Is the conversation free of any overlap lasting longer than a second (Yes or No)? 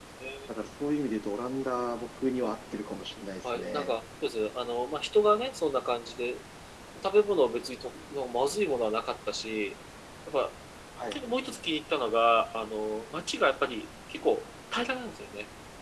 Yes